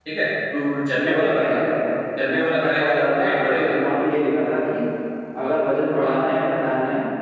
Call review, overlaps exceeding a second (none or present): present